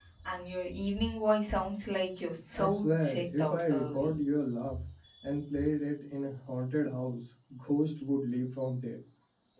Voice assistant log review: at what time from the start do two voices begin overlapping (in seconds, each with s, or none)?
2.5 s